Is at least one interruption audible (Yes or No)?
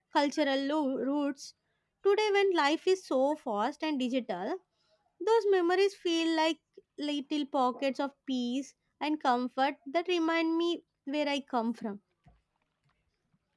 No